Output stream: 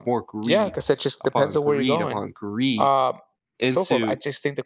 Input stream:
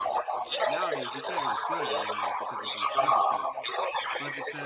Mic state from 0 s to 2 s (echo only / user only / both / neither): both